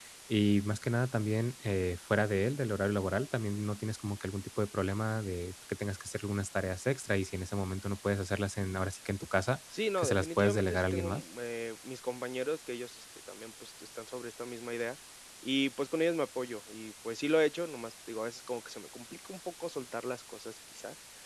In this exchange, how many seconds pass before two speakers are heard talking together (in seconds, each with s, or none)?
10.0 s